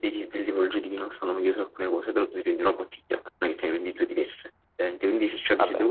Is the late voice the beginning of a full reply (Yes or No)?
No